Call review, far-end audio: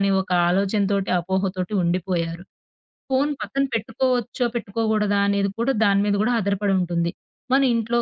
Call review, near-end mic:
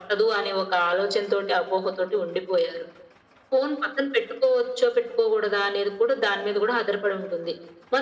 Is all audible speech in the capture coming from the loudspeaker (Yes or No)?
Yes